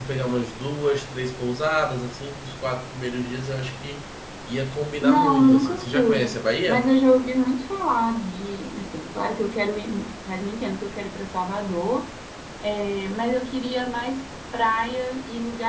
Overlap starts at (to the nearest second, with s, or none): 5 s